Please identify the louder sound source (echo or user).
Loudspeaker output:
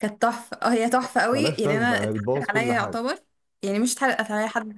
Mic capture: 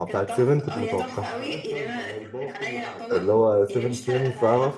user